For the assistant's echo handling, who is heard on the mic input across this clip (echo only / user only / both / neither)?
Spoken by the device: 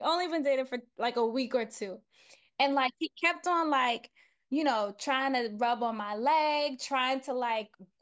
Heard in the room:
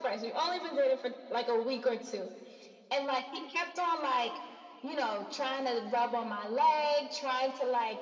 echo only